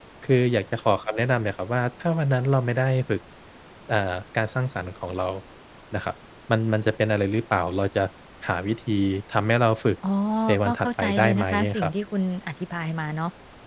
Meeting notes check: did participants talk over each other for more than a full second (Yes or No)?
Yes